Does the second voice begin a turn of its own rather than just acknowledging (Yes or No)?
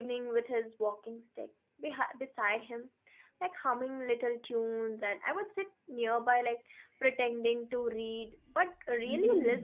Yes